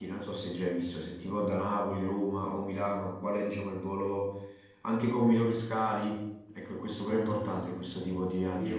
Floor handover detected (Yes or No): Yes